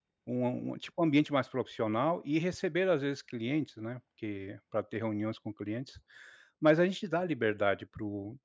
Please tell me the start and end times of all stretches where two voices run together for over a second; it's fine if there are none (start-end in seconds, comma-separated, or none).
none